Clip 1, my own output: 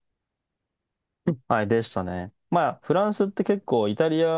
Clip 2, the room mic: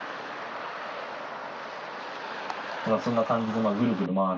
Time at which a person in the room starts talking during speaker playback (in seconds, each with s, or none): 2.8 s